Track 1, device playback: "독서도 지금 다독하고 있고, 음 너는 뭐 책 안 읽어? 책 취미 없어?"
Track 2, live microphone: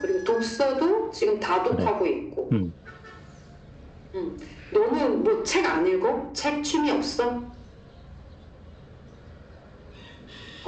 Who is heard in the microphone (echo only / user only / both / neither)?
both